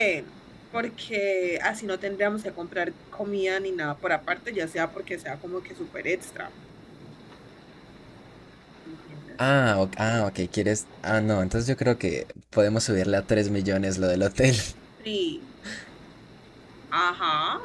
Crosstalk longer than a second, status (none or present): none